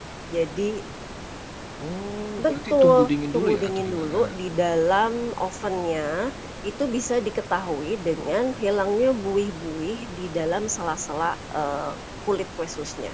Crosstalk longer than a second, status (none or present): present